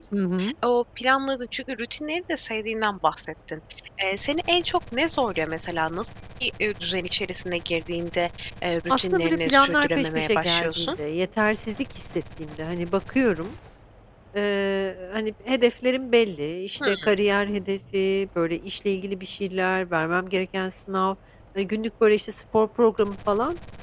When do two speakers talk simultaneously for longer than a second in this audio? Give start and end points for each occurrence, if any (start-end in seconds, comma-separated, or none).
8.9-10.9